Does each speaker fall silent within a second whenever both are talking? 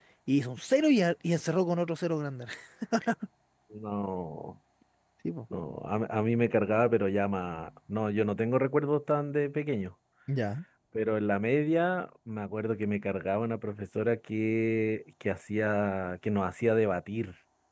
Yes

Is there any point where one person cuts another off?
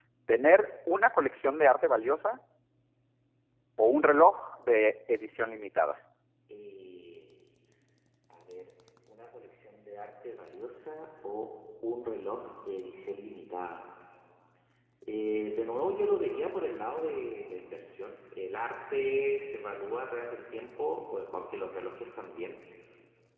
No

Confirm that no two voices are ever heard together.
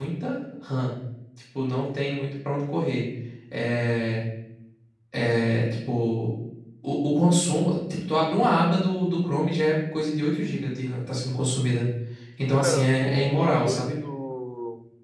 No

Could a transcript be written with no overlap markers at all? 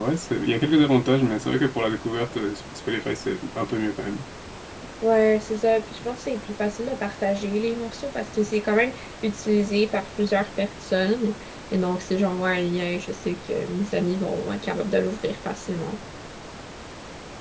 Yes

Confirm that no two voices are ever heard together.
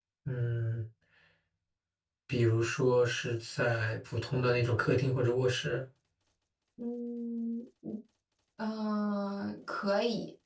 Yes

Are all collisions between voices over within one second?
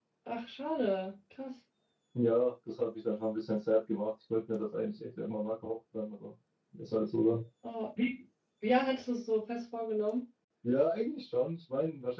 Yes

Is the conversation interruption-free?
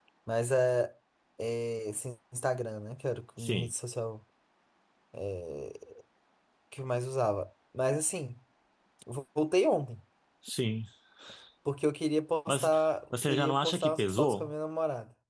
No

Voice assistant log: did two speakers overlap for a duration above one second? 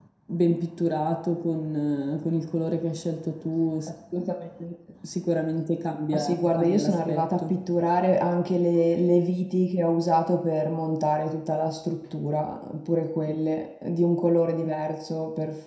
Yes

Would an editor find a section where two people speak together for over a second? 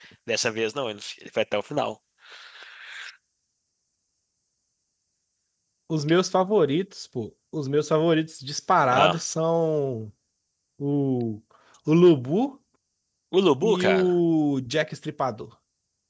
No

